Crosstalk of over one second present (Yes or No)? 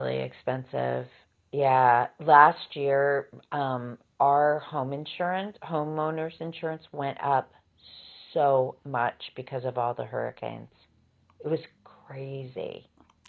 No